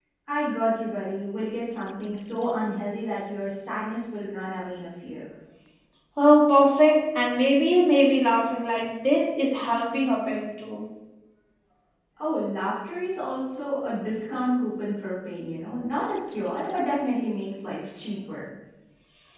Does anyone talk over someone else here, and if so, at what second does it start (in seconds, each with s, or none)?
none